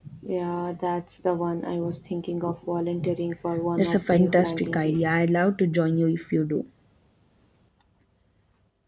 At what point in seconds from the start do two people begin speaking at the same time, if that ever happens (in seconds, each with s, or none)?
3.8 s